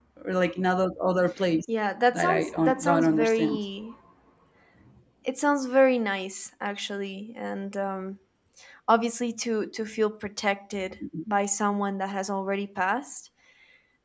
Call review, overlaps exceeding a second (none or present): present